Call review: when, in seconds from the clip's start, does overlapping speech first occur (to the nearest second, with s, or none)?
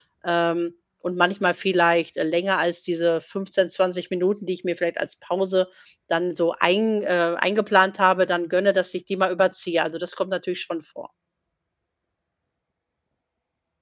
none